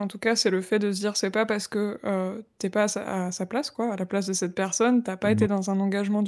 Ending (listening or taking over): listening